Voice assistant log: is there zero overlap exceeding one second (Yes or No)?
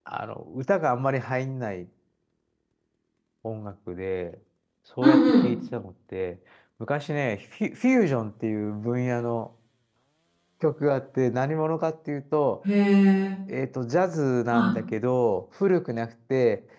Yes